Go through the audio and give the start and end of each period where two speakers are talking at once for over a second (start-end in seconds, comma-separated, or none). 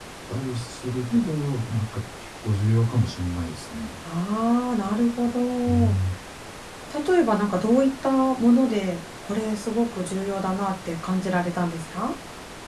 none